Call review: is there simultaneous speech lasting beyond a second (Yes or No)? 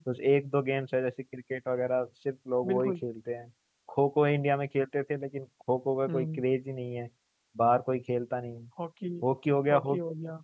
No